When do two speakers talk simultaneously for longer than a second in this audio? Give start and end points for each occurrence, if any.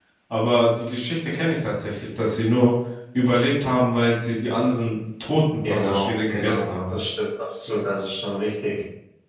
5.6-6.9

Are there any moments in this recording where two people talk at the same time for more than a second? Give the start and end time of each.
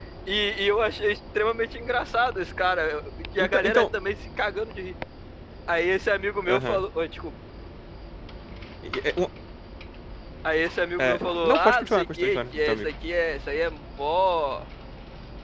11.0-12.9

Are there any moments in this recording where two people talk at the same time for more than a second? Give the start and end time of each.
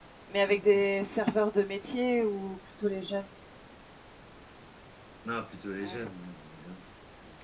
none

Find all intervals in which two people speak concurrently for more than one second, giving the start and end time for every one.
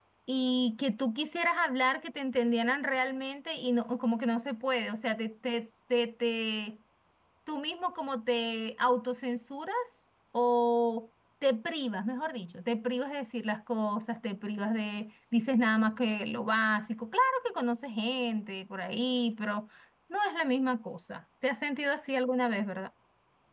none

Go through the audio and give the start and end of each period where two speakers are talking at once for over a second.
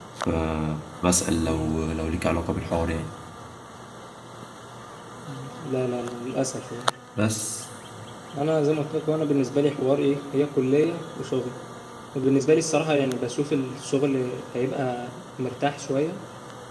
none

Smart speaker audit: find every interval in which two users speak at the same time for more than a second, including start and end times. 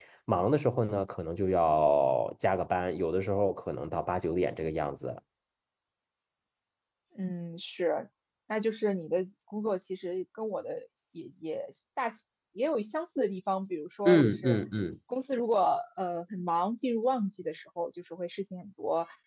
none

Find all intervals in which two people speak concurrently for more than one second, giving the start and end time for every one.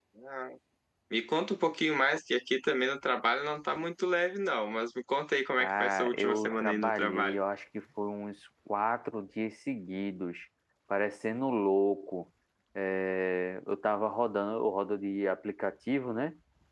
5.6-7.4

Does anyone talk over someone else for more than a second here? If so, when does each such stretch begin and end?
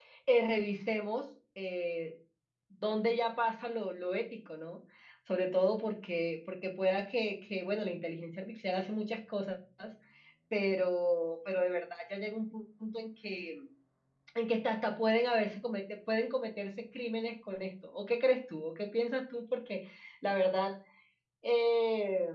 none

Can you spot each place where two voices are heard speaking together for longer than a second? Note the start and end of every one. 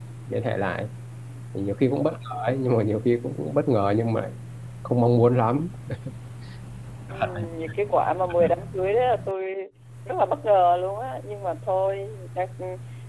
none

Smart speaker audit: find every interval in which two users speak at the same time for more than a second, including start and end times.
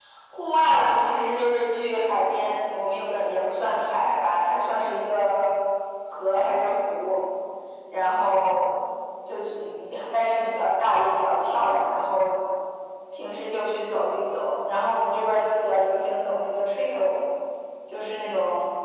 none

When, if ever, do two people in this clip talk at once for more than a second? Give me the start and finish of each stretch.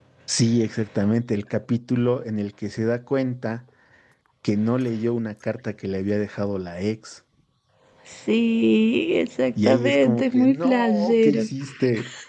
9.6-11.5

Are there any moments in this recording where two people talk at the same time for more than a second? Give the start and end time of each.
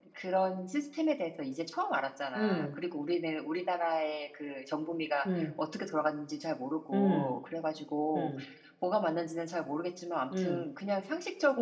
none

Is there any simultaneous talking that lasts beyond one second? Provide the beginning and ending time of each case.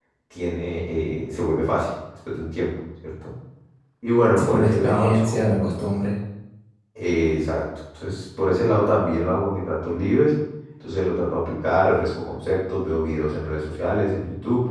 4.4-5.7

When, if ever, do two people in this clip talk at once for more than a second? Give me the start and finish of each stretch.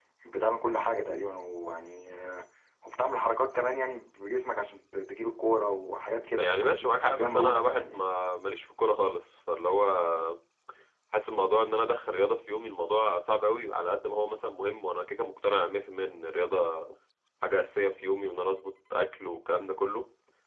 6.4-7.9

